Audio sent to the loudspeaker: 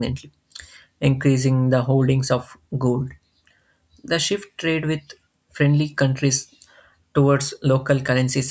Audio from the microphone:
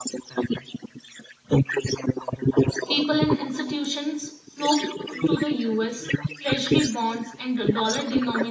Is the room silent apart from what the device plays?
No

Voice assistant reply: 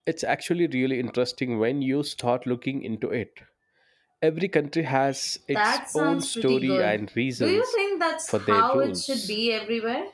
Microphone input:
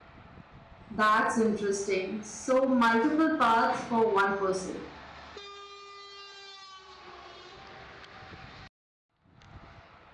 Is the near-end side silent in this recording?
No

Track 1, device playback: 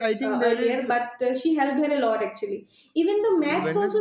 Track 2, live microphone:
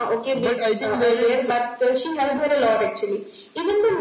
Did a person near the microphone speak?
No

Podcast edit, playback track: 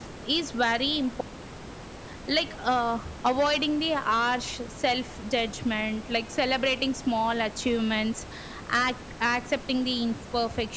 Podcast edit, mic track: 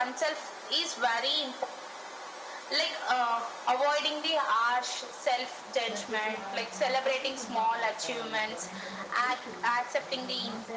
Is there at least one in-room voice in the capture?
Yes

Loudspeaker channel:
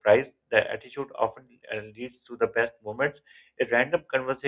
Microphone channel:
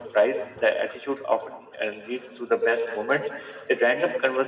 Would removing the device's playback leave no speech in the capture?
Yes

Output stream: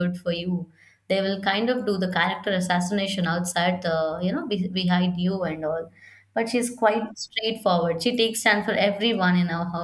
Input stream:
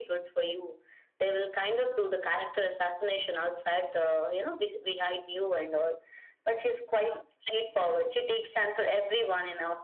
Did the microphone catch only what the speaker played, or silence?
Yes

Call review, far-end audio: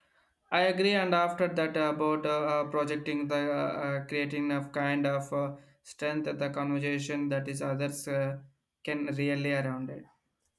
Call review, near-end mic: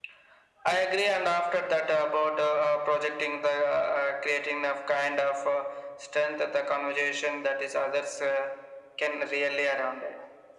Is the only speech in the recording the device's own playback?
Yes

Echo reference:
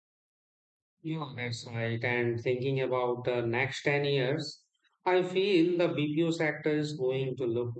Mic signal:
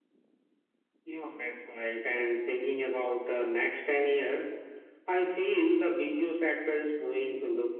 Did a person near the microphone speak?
No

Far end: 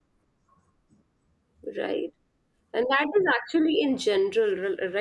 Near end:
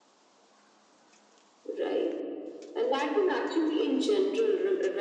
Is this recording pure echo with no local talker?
Yes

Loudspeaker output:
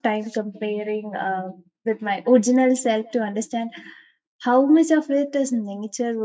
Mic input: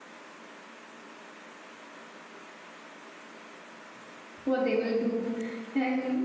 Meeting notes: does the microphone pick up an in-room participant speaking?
Yes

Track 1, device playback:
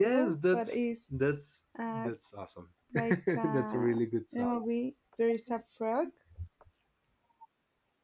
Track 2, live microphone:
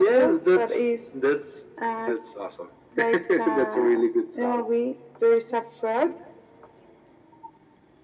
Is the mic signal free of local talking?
Yes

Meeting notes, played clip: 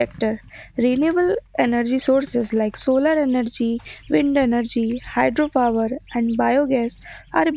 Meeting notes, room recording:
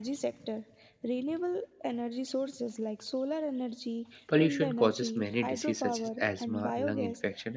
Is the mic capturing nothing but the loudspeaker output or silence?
No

